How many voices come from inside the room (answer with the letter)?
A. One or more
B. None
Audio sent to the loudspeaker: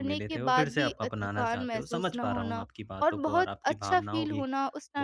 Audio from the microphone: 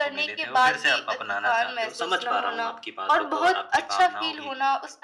B